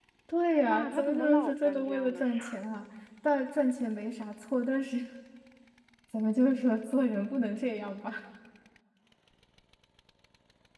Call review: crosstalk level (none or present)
present